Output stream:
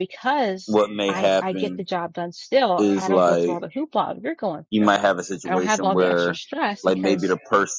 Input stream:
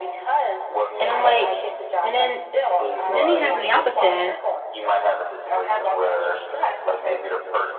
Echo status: present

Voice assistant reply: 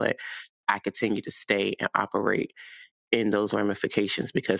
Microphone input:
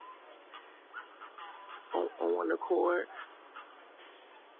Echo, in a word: none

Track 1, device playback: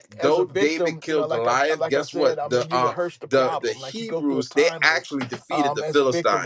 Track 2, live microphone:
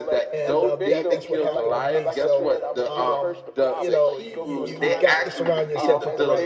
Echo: present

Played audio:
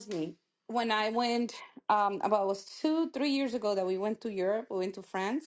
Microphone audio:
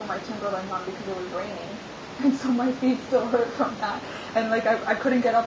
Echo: none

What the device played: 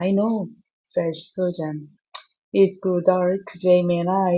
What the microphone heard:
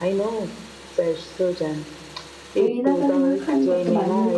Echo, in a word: present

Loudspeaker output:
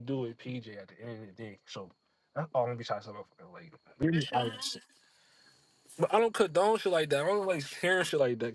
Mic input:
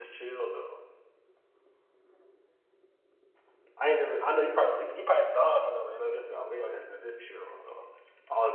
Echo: none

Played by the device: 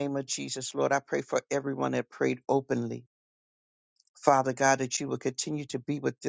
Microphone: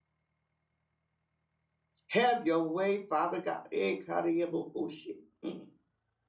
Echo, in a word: none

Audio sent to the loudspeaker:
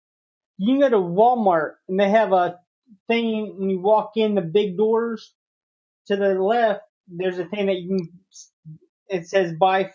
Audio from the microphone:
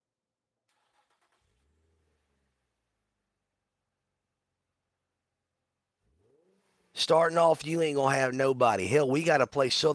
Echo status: none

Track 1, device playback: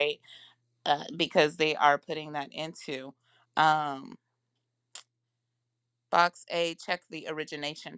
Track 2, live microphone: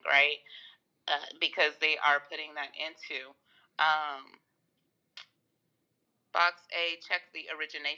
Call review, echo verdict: present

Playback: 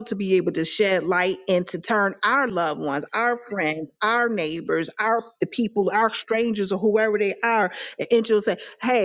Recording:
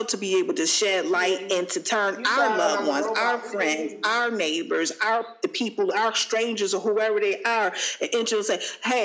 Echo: present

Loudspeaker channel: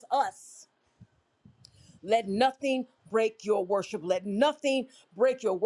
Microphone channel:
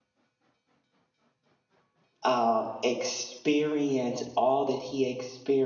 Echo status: none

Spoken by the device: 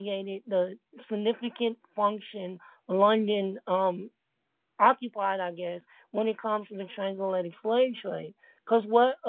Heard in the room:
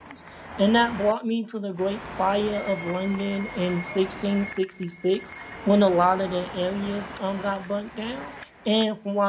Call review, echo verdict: none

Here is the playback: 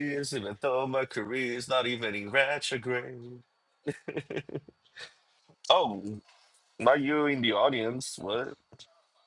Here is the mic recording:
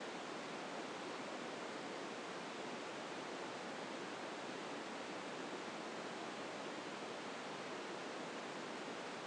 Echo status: none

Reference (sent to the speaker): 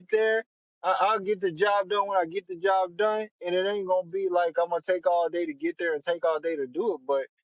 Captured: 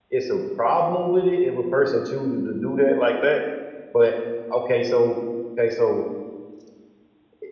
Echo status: none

